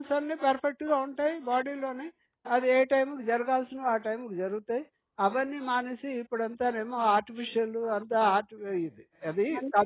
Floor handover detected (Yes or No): Yes